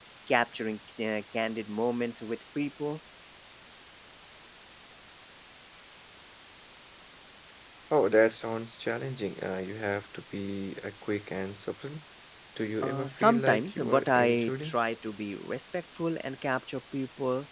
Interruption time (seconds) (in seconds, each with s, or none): 12.8 s